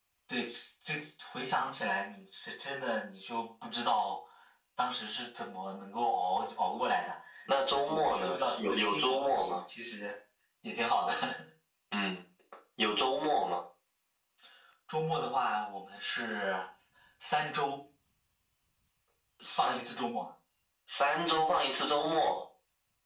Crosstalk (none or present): present